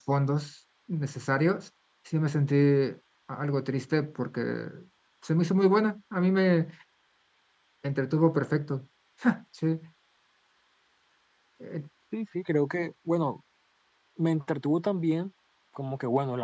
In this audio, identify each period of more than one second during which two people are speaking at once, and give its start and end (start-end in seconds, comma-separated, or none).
none